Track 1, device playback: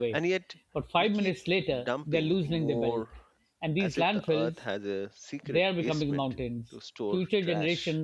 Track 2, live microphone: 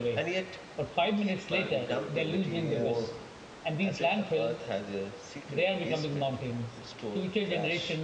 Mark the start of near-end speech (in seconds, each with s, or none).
1.4 s